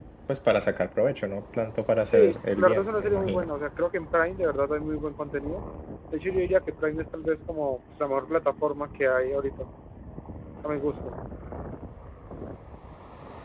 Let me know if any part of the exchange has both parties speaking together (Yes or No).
Yes